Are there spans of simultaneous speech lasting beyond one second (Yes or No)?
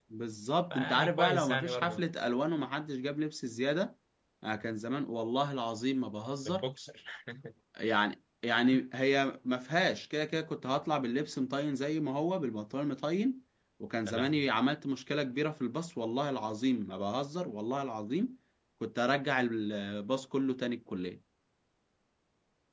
Yes